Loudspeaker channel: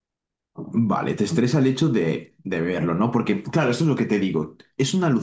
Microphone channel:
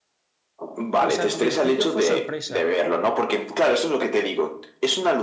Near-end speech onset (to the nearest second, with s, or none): 1 s